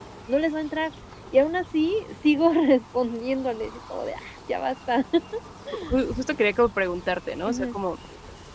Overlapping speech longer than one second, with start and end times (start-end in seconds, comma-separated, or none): none